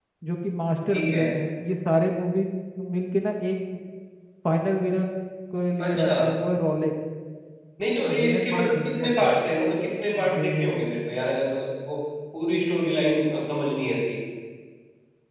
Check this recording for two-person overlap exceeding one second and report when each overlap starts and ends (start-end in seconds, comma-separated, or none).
8.1-9.3